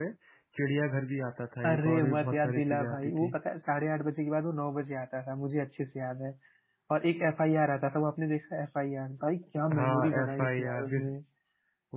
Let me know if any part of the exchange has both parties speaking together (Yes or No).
Yes